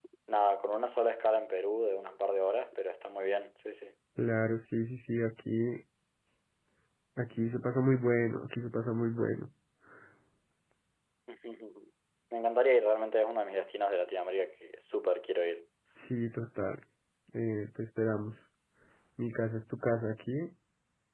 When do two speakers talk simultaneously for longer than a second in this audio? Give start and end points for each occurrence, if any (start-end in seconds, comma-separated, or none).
none